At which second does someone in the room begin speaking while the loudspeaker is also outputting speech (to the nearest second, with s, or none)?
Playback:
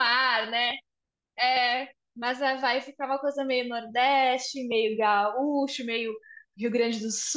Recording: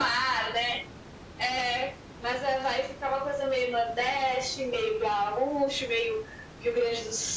none